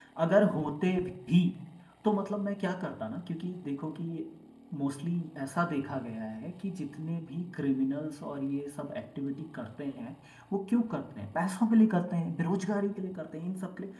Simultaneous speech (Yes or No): No